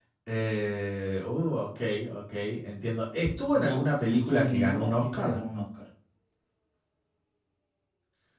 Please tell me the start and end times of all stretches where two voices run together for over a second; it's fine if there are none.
3.5-5.4

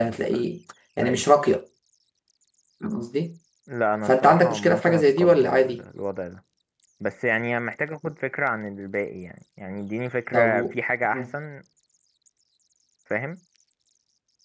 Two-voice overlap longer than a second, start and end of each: 4.1-5.8

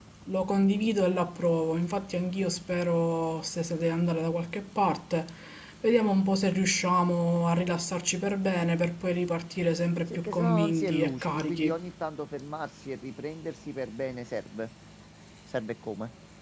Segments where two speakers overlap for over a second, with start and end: 10.1-11.8

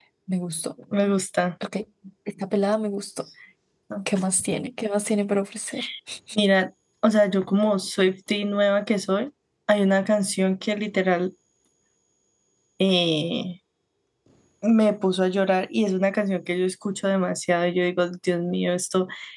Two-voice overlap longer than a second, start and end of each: none

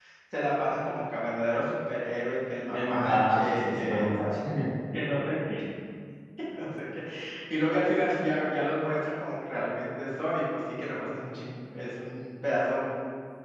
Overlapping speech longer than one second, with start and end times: 2.7-4.4

